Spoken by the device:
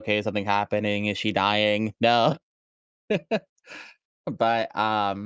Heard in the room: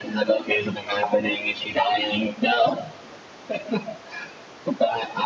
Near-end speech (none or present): none